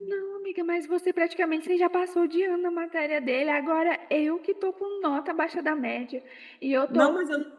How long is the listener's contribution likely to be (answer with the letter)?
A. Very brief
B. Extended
B